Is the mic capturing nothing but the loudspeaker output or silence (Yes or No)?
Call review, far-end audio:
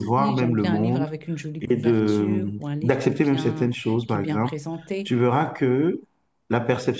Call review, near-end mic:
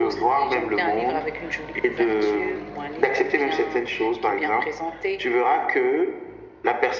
Yes